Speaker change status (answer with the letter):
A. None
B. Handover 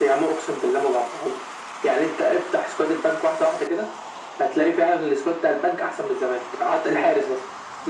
A